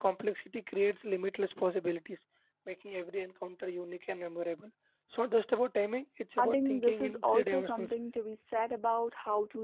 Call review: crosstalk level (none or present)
present